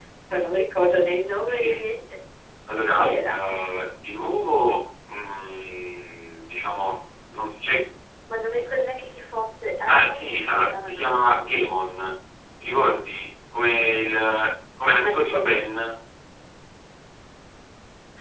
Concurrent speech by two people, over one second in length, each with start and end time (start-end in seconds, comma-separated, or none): 9.9-11.2